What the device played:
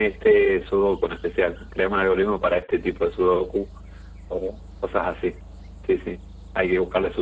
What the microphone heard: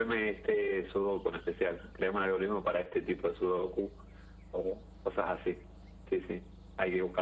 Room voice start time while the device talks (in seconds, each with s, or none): none